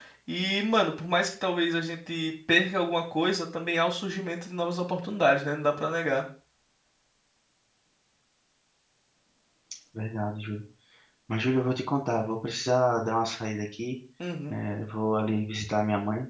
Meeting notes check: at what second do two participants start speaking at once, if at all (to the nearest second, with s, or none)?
none